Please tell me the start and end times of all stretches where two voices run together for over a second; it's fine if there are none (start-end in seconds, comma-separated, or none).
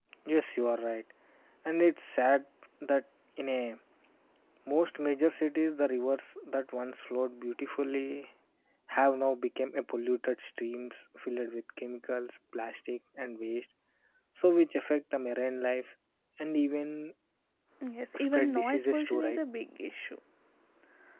18.1-19.4